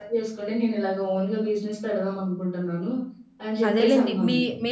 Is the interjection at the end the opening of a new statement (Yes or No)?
Yes